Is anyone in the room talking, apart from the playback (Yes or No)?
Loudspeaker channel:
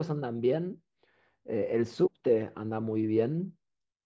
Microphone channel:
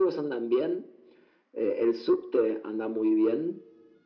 No